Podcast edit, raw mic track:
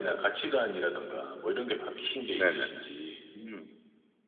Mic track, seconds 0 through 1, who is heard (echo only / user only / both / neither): echo only